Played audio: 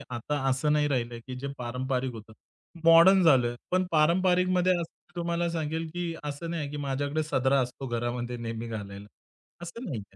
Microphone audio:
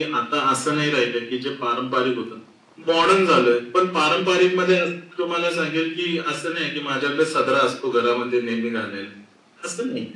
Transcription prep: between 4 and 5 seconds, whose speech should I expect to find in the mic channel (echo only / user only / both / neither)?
echo only